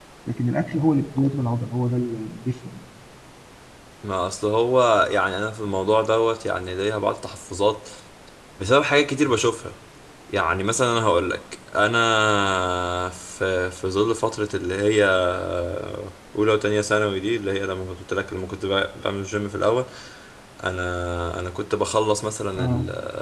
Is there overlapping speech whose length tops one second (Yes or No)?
No